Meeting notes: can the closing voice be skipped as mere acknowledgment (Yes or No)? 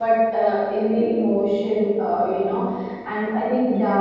Yes